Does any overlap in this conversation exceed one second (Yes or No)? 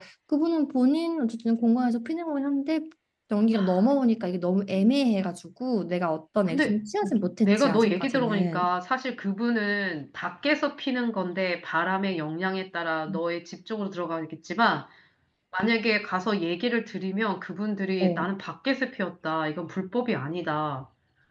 Yes